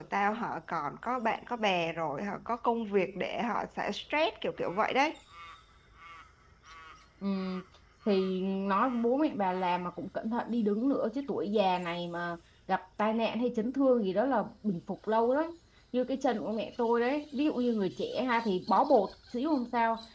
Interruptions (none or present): none